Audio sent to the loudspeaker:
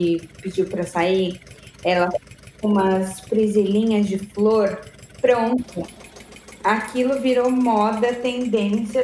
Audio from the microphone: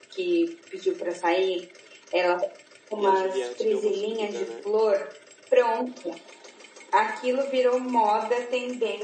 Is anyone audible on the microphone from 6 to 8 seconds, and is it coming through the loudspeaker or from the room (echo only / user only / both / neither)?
echo only